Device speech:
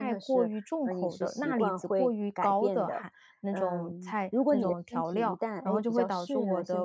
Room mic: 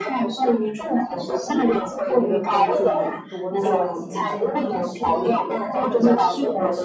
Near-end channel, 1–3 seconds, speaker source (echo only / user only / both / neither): both